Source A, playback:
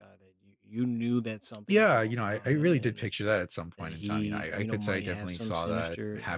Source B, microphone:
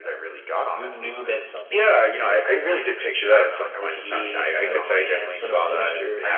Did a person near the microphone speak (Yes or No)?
Yes